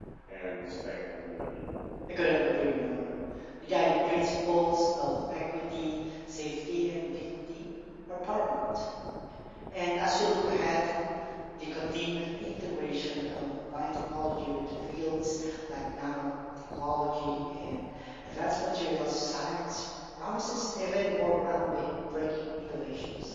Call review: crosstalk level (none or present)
none